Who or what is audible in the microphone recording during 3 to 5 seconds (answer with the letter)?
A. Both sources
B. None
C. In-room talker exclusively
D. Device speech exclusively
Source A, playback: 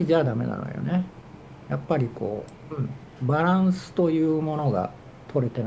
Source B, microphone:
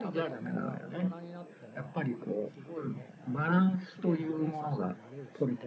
A